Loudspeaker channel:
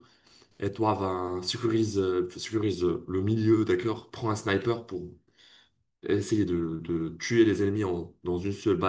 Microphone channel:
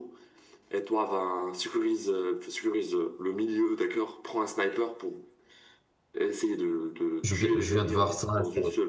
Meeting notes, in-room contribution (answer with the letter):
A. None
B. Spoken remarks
B